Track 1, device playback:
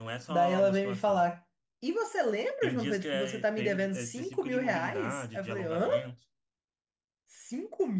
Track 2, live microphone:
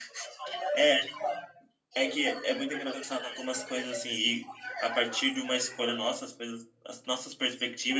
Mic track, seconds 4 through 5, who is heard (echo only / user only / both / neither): both